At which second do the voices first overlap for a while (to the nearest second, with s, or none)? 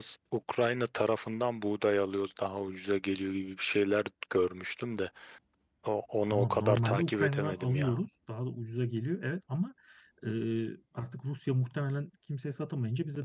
6 s